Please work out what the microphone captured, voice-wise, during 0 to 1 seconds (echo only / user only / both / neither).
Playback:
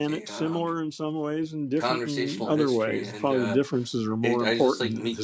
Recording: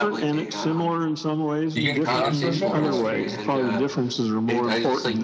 echo only